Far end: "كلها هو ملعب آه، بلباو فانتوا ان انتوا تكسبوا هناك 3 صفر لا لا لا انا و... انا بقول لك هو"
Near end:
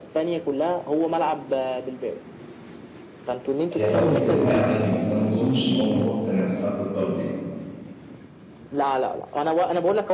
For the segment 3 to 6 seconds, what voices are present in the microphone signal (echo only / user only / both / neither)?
both